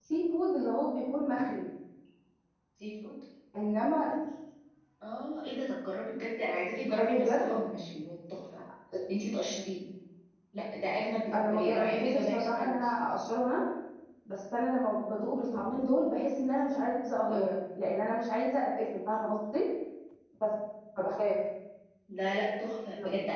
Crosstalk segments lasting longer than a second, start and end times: 11.3-12.9

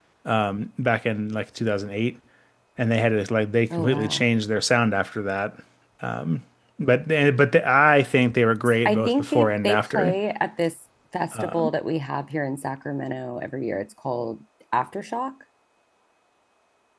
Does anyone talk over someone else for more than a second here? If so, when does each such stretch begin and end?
8.8-10.2

